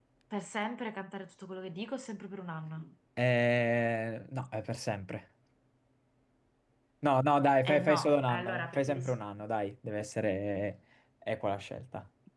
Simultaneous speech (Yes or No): Yes